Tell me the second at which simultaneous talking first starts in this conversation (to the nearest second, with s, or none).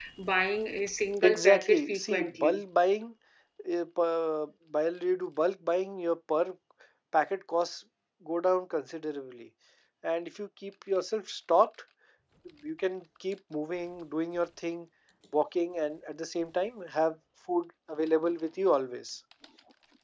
1 s